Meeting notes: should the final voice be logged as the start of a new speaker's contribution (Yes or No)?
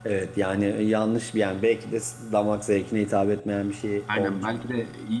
Yes